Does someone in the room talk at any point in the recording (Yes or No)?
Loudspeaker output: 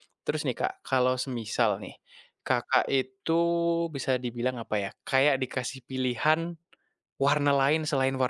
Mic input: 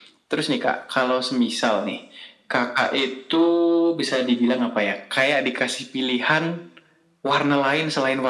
No